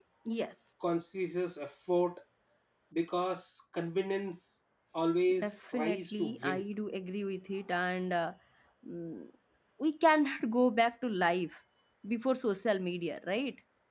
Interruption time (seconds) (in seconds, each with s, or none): 5.3 s